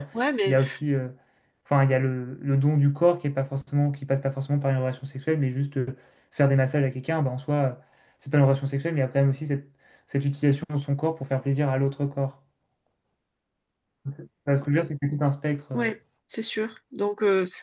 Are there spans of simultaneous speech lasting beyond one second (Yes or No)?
No